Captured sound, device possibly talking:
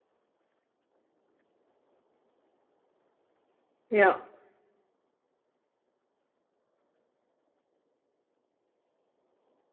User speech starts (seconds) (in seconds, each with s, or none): 3.9 s